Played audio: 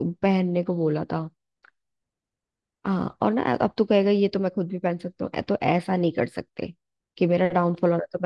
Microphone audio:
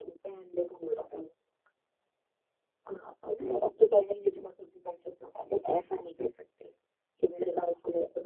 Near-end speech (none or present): none